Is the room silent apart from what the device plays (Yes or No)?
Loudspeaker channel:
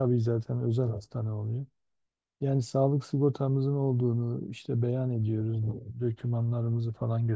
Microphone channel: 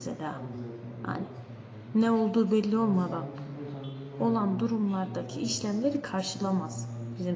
No